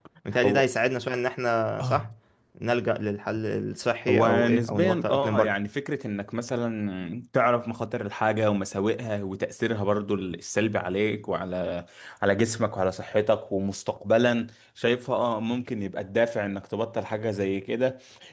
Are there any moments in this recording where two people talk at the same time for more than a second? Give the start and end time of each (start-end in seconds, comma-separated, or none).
4.1-5.5